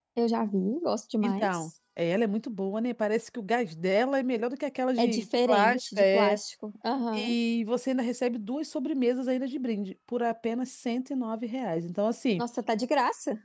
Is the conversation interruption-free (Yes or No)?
No